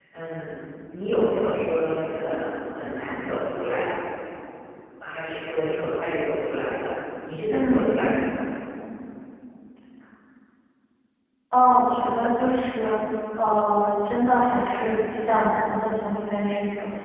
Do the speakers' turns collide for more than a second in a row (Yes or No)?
No